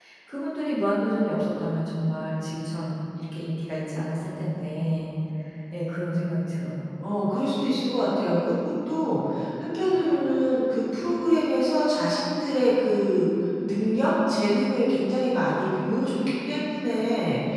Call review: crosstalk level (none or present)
none